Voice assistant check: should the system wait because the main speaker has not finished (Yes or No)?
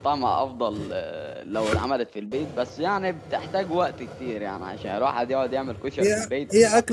No